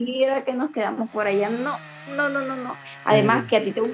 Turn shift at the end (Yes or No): No